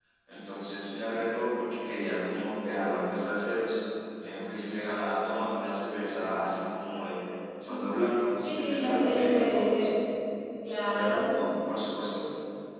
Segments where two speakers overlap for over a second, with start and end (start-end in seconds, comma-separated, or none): 8.4-9.9